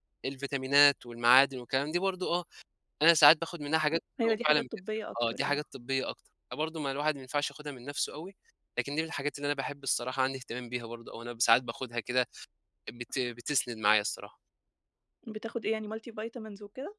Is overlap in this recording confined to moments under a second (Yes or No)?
Yes